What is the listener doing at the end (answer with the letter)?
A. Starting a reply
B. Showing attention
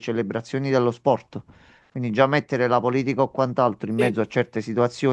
B